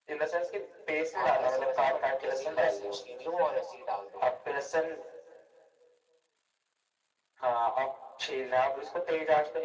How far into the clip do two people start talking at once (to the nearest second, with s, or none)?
1 s